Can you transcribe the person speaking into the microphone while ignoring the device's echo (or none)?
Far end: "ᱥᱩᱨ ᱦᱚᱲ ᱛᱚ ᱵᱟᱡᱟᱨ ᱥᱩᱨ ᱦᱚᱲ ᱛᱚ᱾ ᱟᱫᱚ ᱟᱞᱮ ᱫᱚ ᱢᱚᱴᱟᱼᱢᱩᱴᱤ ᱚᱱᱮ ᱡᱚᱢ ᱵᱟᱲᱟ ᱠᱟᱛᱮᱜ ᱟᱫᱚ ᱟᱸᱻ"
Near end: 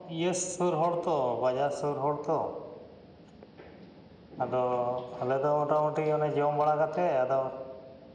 none